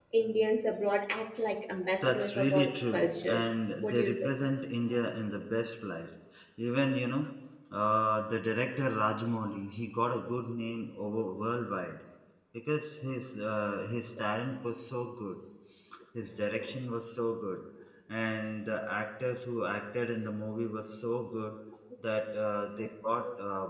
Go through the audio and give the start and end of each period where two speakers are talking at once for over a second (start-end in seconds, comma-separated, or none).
2.0-3.4